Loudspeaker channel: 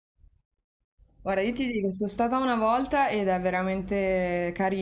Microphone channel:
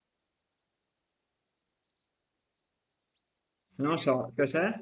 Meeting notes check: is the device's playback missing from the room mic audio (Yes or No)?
Yes